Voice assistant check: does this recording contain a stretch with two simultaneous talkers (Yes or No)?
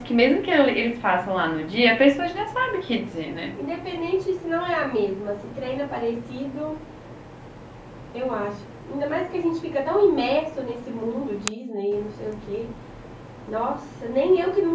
No